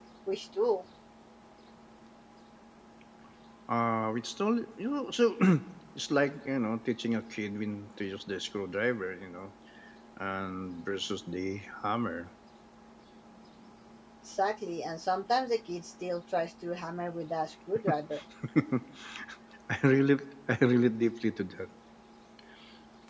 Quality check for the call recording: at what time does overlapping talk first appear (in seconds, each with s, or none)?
none